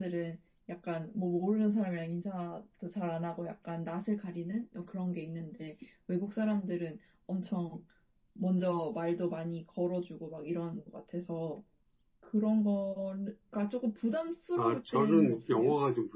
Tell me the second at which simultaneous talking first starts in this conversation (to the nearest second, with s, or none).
15 s